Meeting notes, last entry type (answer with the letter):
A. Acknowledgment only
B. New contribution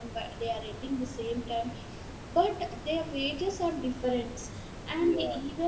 A